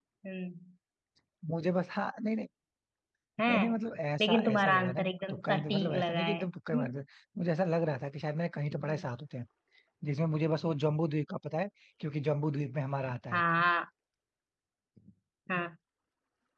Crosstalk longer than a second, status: present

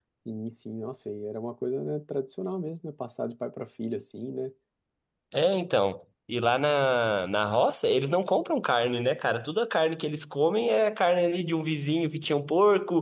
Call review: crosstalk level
none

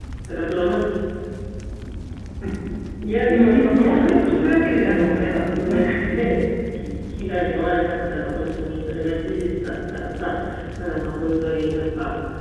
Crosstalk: present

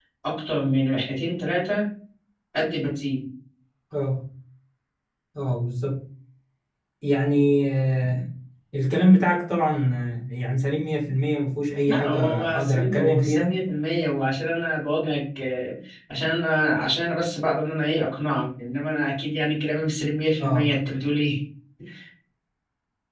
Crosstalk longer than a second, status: present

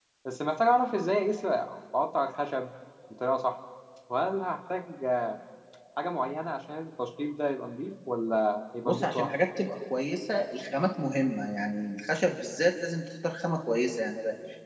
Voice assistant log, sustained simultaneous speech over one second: none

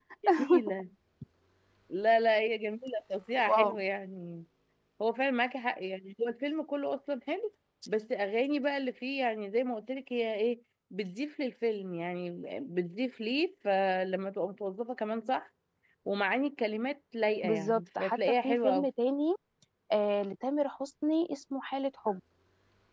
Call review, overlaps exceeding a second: present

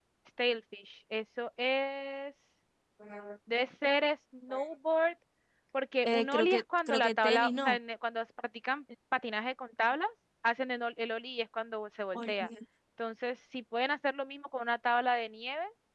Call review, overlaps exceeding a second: present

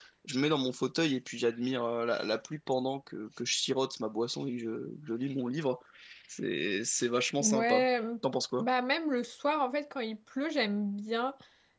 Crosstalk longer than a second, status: none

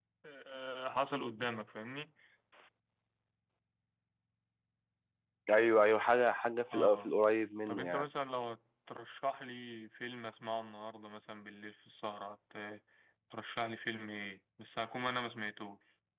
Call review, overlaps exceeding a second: none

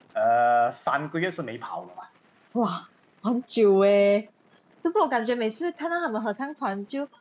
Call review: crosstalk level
none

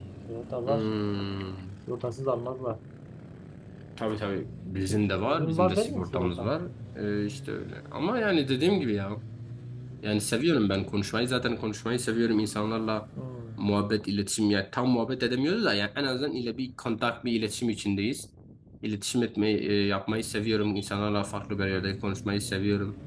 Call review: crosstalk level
present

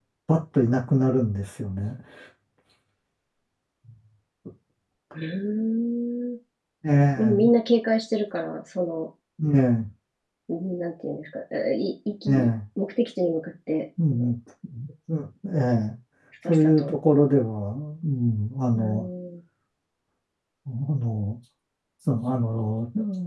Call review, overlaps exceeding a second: none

